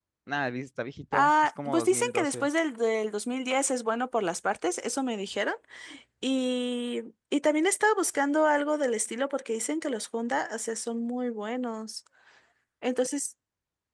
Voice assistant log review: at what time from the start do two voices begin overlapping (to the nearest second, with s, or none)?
1 s